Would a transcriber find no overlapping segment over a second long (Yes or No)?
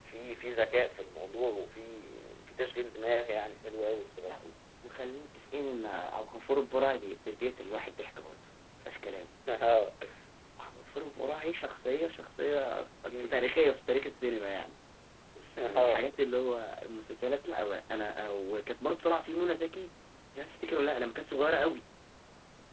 Yes